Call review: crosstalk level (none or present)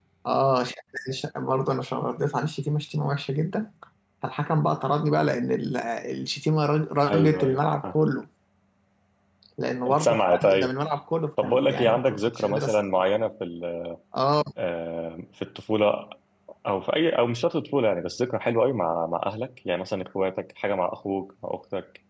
present